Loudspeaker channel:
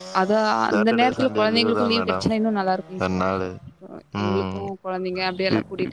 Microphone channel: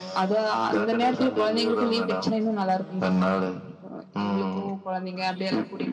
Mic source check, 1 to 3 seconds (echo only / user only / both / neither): echo only